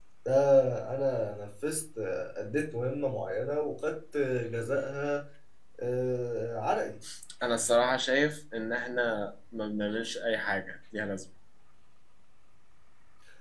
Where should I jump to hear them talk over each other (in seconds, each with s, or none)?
none